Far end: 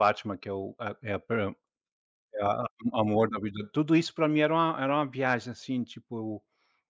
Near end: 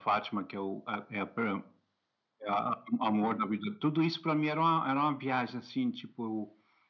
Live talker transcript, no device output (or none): none